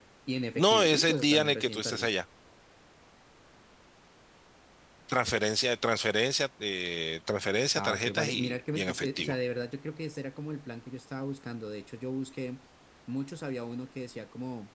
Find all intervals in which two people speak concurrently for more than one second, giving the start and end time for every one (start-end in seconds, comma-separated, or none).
0.6-2.1, 7.8-9.4